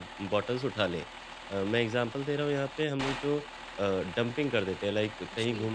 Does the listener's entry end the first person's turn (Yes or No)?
No